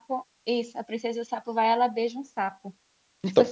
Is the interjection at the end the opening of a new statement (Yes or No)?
Yes